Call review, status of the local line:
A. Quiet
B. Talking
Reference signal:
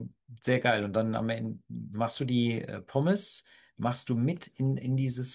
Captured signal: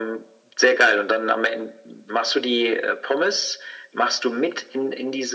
A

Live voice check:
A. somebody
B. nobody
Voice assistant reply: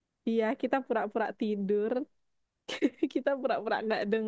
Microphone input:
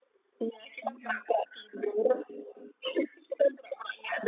A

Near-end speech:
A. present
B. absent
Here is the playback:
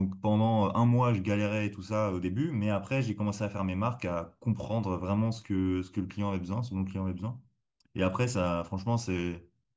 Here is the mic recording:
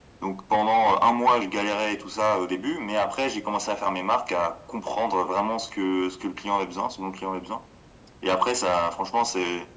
B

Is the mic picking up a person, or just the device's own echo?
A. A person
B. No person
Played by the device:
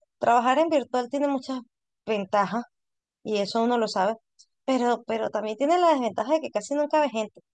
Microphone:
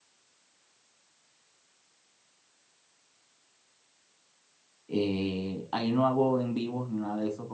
A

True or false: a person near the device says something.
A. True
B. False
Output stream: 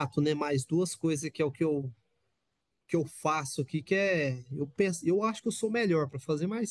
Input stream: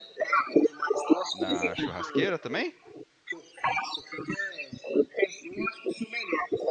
A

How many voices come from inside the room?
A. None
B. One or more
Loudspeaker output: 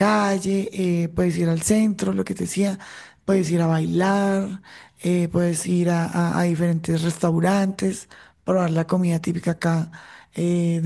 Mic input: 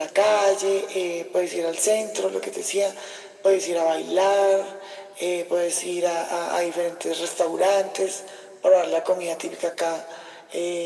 A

